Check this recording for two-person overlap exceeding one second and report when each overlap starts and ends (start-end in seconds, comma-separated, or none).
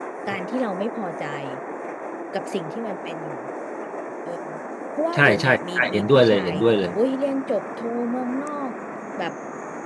5.1-6.6